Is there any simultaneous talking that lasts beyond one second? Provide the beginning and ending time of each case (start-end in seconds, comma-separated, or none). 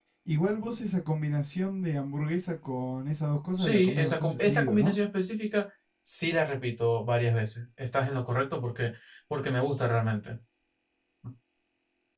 3.6-4.9